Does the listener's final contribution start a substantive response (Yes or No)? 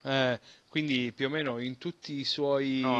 Yes